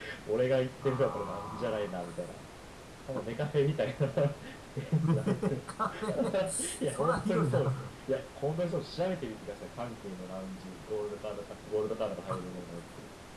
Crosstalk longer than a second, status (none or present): present